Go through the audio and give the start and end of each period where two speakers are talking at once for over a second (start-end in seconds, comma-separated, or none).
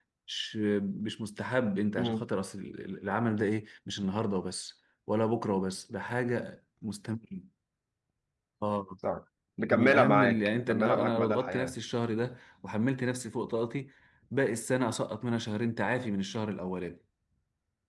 9.7-11.7